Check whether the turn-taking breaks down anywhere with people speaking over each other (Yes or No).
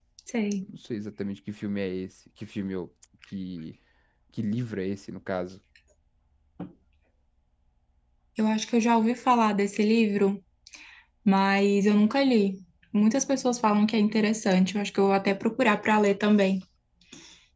No